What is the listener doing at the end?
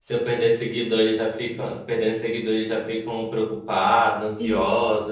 taking over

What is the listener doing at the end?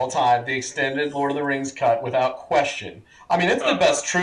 listening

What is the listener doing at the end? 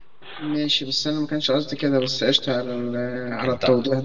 listening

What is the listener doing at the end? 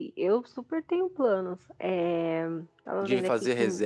taking over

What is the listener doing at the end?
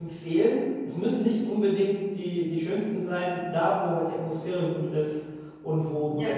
listening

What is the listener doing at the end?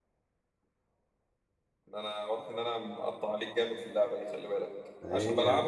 listening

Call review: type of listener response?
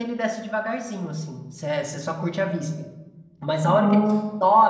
listening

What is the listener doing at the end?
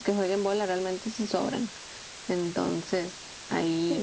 taking over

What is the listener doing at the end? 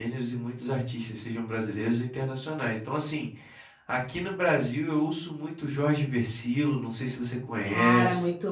taking over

